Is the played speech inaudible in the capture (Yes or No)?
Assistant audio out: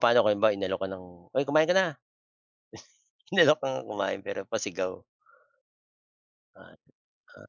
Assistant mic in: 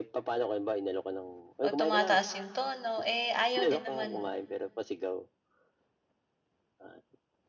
No